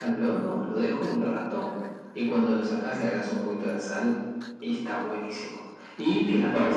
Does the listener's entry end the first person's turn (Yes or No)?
No